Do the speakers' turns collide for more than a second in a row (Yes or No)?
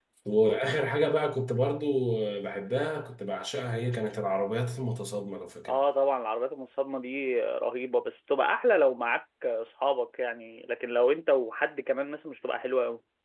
No